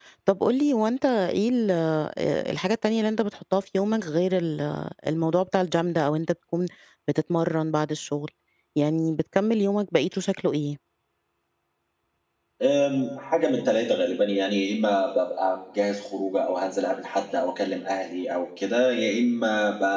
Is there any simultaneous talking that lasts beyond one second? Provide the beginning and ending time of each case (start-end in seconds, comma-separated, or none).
none